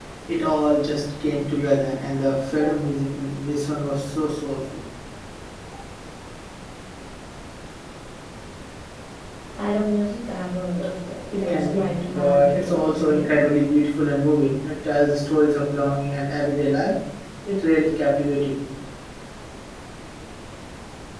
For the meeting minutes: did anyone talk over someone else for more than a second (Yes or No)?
Yes